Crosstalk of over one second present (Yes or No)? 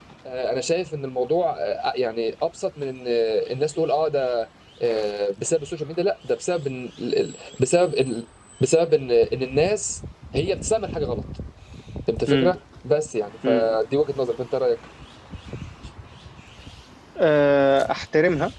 No